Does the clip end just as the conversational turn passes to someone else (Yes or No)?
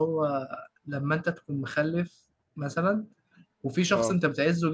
No